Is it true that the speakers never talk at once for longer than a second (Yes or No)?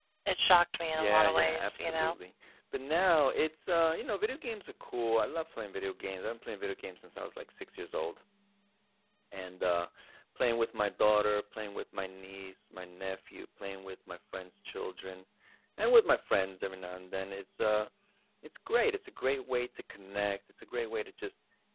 No